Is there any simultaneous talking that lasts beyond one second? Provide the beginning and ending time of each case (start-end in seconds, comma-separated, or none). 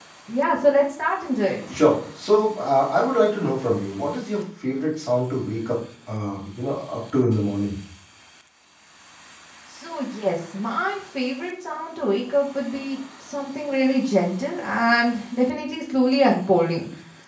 none